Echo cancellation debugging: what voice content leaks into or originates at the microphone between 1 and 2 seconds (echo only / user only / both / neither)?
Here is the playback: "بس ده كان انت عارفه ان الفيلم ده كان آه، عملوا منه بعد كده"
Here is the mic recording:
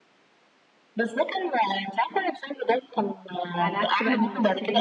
echo only